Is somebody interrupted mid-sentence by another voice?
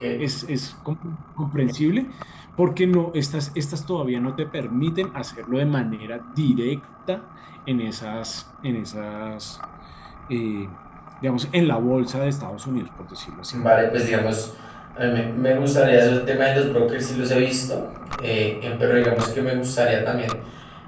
No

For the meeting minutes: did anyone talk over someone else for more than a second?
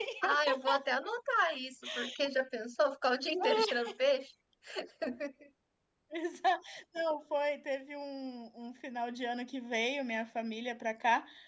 No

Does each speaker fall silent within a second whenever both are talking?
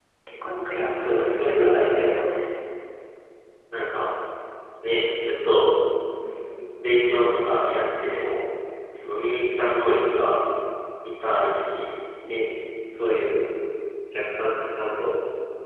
No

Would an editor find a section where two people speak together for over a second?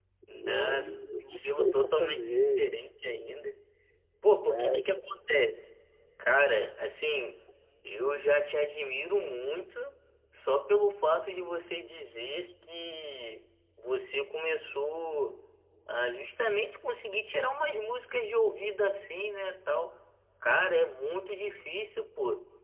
Yes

